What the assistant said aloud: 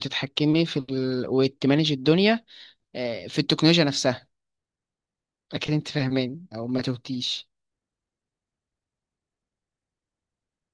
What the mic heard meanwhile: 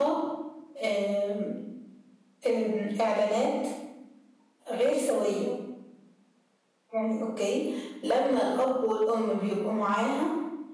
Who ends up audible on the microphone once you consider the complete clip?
user only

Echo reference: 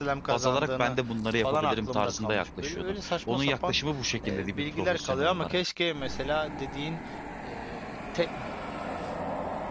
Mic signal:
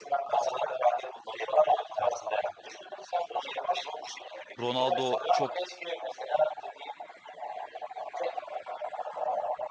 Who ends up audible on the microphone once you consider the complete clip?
both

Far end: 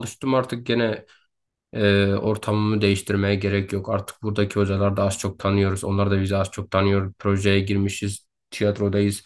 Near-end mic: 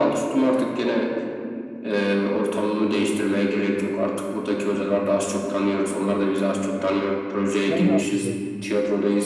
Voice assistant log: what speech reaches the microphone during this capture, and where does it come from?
both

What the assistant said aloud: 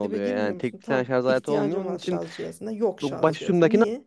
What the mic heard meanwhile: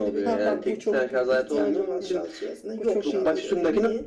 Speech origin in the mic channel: both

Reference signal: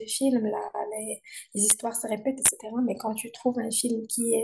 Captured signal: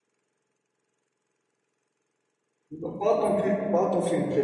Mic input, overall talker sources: user only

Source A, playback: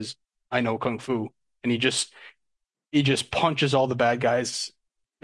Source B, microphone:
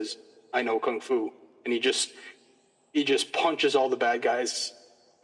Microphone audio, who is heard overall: echo only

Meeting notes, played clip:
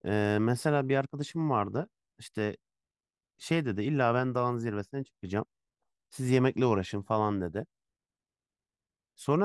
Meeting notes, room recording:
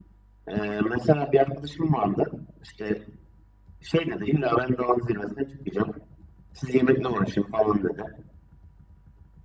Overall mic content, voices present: echo only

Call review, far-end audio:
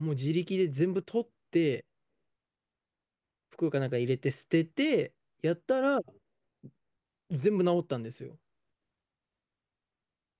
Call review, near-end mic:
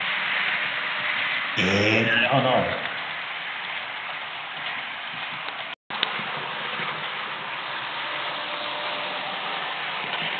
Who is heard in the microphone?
user only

